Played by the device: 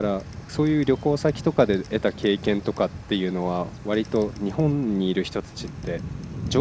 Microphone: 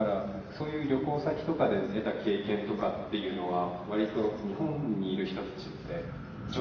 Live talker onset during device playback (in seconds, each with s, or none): none